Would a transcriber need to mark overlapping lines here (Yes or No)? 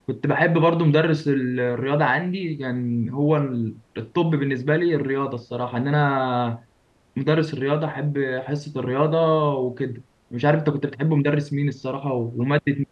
No